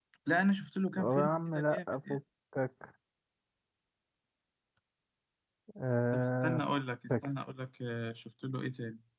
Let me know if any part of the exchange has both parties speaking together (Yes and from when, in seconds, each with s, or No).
Yes, from 1.0 s